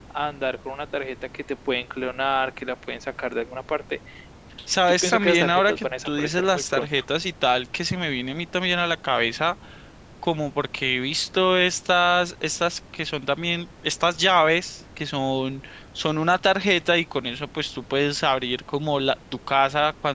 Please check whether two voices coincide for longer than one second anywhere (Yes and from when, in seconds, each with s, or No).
Yes, from 5.0 s